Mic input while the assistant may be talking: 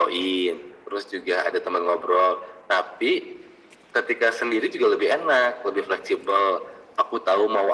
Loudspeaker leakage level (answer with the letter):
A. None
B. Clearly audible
B